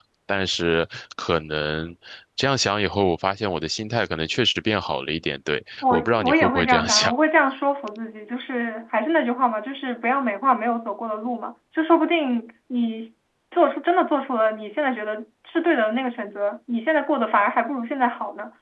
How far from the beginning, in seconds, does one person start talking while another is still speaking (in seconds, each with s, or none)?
5.8 s